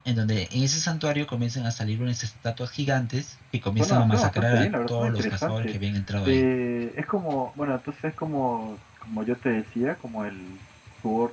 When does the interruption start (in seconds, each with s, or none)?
3.8 s